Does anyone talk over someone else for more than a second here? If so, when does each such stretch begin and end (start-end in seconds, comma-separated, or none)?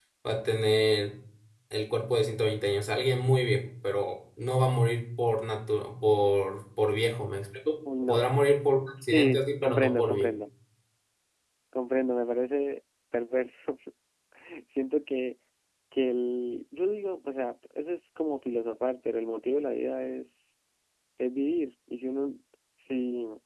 9.0-10.3